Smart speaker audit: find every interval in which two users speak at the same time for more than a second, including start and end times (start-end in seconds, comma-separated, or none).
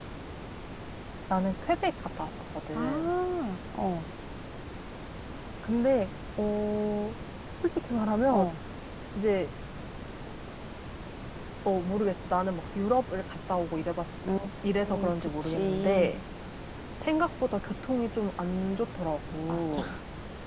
14.8-16.1